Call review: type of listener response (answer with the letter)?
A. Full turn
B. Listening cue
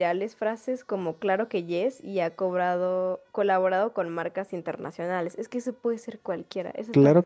A